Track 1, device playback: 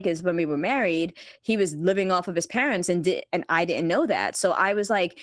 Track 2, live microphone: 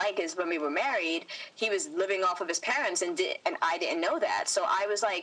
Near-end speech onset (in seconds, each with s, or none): none